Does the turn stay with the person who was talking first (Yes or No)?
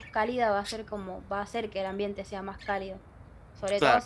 Yes